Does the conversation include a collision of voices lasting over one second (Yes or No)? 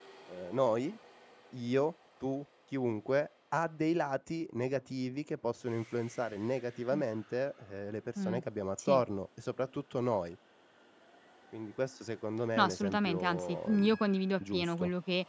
Yes